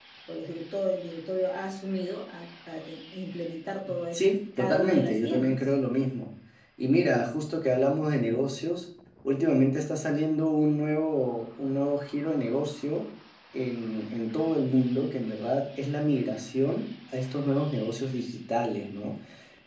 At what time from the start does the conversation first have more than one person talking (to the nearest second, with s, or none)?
4 s